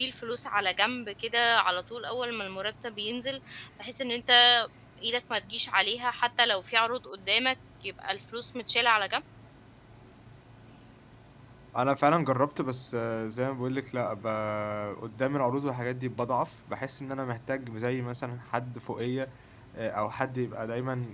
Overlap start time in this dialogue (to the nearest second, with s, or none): none